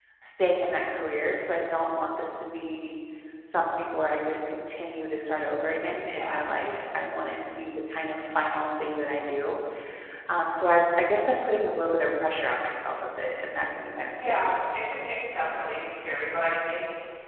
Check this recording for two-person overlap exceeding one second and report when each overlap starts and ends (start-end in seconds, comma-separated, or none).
none